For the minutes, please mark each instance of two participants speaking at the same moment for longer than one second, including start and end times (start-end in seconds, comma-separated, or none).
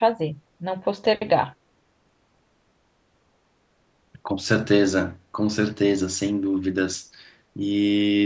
none